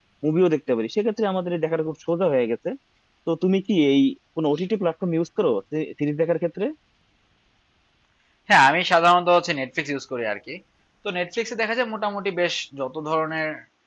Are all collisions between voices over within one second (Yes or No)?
Yes